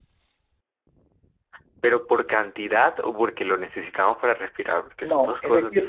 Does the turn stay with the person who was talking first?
No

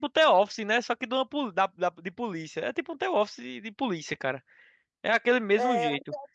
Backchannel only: No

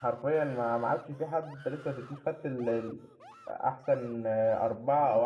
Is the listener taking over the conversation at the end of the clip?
Yes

